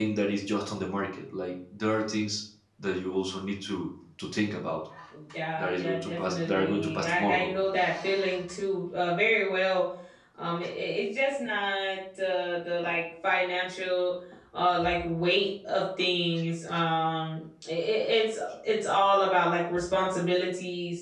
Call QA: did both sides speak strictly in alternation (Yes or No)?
No